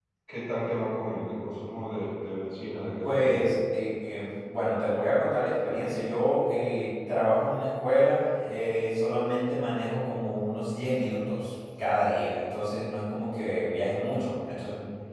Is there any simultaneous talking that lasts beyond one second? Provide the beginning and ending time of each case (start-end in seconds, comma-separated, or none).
none